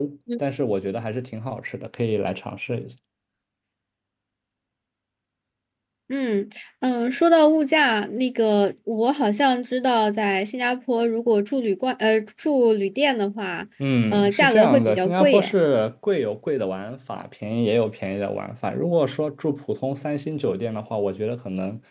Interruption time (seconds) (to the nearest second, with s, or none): 14 s